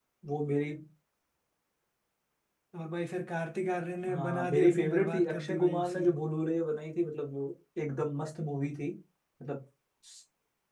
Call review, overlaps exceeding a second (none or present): present